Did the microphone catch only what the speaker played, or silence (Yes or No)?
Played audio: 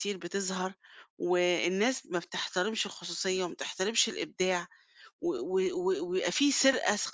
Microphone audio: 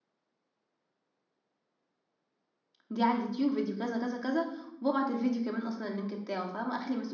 No